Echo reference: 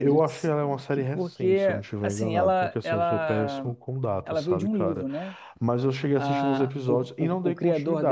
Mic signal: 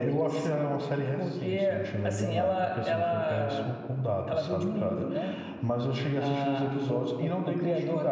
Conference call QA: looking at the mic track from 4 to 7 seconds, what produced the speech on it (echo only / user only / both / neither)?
echo only